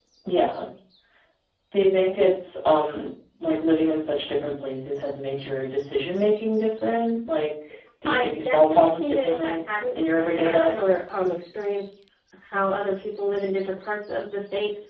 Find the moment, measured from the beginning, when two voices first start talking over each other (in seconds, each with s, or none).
8.1 s